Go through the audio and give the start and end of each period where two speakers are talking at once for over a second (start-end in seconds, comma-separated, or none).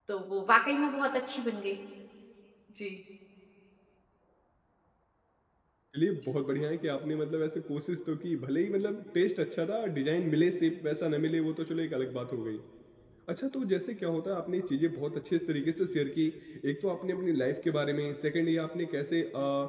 none